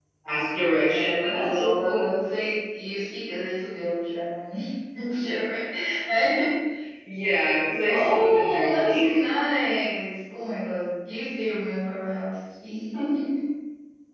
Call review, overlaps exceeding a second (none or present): present